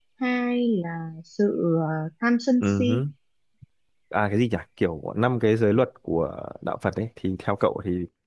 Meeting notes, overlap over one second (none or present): none